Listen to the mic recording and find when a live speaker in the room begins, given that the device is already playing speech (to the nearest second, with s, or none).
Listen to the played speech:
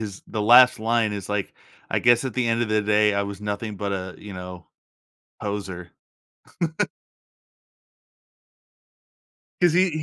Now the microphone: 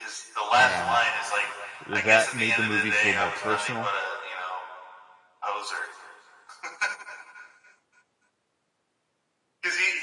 1 s